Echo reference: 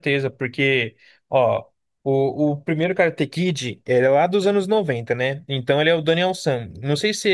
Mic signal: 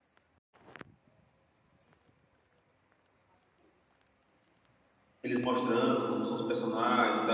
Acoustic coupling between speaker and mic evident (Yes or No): No